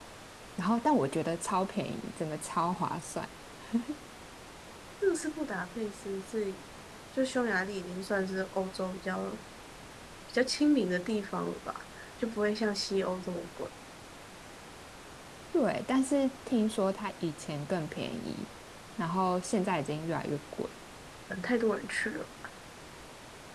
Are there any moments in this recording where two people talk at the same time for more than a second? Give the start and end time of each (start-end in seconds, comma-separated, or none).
none